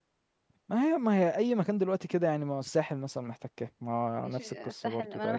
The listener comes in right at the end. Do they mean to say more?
Yes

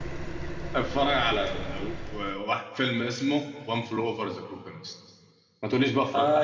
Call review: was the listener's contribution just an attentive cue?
No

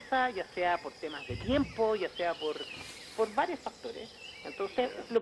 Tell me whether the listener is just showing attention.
Yes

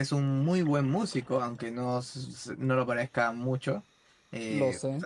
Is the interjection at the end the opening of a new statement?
No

